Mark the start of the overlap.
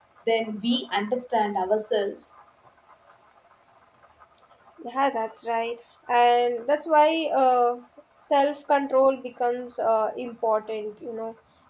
none

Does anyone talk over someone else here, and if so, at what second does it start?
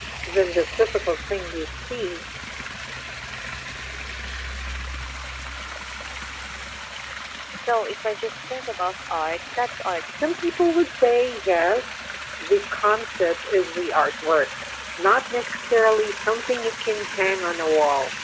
none

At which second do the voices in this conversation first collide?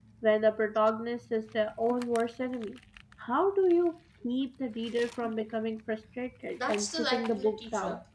6.6 s

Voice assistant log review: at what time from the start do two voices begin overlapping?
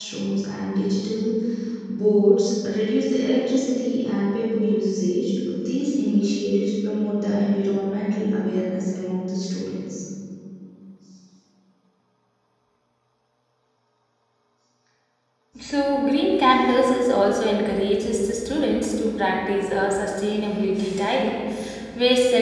none

